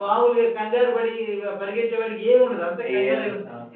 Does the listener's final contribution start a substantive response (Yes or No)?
Yes